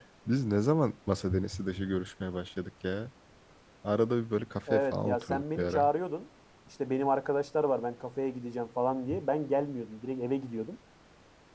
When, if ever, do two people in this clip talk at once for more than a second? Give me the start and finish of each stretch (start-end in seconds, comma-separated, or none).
4.7-5.9